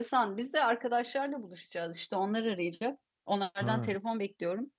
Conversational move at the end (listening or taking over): listening